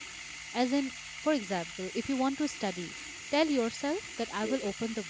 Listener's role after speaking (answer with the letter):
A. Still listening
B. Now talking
A